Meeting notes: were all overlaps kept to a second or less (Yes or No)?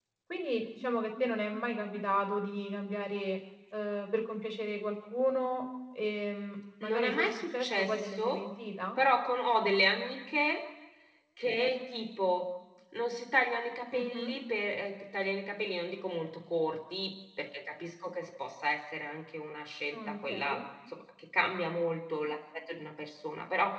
No